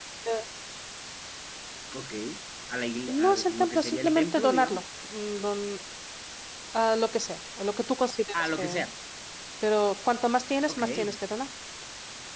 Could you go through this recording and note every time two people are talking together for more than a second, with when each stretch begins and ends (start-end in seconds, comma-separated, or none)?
3.1-4.8